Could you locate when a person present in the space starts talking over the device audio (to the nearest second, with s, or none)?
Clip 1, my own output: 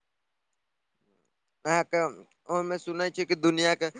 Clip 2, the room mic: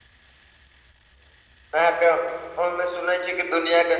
none